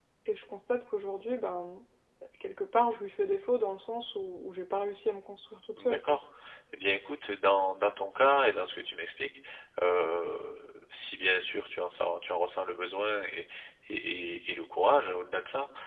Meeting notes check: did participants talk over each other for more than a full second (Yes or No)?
No